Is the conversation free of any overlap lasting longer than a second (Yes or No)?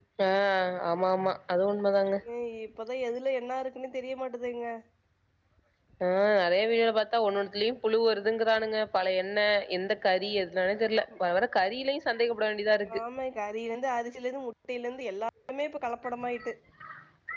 Yes